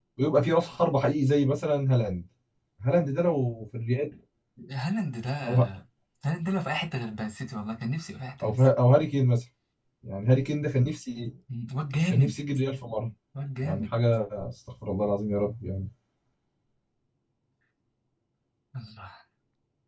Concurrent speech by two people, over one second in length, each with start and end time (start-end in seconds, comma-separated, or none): none